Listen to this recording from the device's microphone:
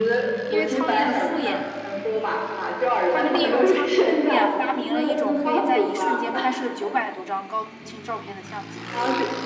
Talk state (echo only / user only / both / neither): both